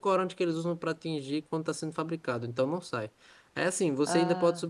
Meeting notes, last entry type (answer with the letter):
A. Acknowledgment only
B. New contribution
A